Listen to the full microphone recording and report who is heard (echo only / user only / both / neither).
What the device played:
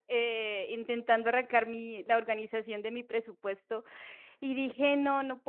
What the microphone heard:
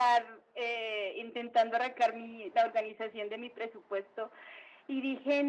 echo only